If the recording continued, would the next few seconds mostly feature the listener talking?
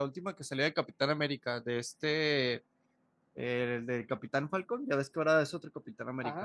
Yes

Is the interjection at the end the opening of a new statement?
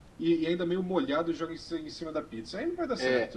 Yes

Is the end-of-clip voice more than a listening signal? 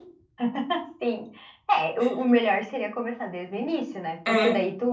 No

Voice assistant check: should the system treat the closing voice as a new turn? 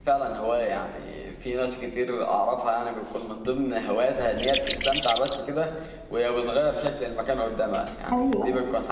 No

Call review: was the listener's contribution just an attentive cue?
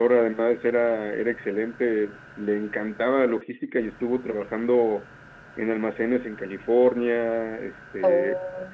Yes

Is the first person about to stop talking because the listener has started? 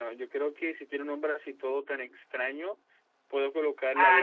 Yes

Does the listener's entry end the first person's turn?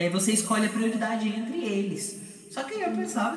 No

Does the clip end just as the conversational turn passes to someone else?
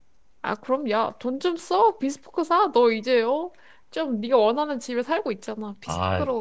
Yes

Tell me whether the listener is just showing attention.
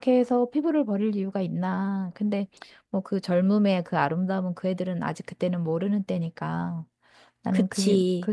Yes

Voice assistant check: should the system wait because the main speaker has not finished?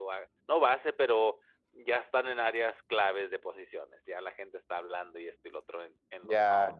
No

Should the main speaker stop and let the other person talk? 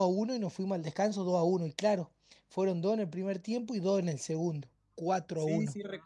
Yes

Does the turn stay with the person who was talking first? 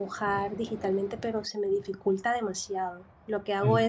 Yes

